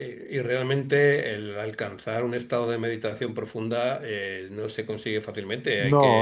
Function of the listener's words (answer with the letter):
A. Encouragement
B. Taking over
A